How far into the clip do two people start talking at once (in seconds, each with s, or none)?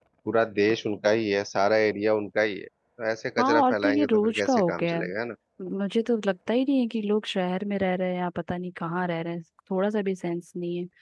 3.4 s